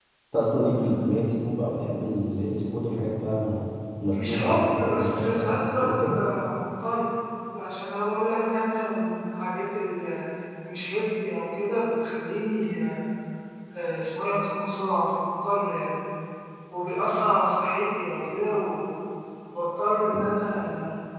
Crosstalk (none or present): present